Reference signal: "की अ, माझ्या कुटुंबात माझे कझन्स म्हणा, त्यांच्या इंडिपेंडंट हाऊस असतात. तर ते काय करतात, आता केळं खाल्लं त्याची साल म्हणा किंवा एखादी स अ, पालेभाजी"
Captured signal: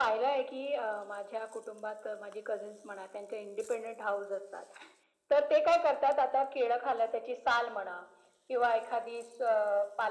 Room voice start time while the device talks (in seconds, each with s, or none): none